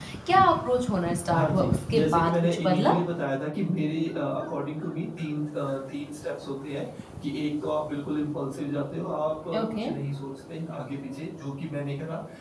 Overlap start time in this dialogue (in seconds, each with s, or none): 1.3 s